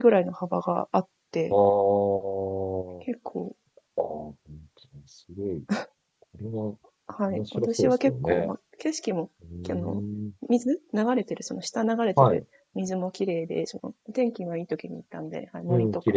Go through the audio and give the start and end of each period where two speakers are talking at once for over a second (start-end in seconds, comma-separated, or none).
7.3-8.5